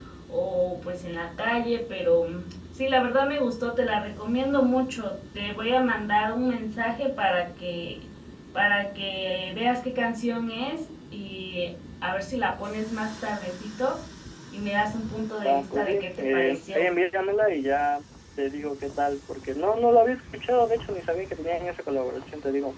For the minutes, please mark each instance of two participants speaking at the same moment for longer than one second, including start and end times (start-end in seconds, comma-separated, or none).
15.4-16.8